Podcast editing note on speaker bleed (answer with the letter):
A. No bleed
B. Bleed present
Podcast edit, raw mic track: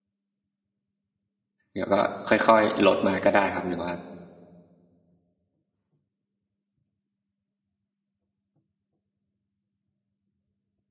A